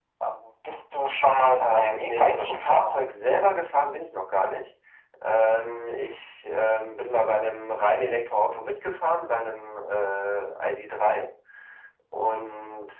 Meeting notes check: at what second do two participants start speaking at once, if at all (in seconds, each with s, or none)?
1.5 s